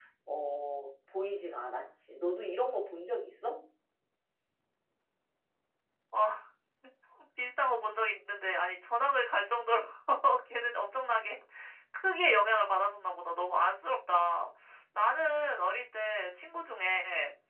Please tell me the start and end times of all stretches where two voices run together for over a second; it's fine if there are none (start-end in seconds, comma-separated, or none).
none